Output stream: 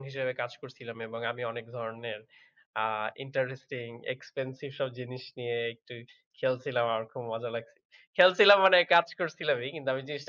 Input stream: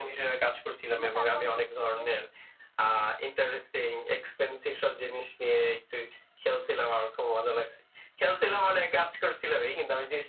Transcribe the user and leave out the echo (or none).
কিন্তু তারপরে দেখি যে